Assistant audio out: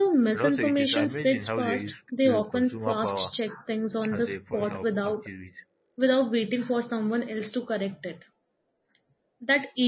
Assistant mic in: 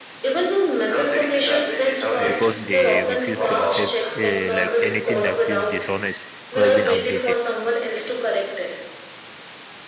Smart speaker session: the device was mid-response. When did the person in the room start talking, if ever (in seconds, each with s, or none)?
2.2 s